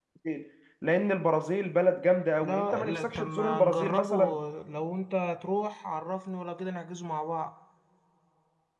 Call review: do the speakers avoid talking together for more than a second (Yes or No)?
No